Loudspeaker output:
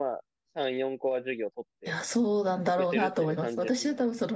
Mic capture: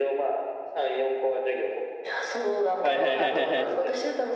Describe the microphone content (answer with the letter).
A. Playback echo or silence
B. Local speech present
B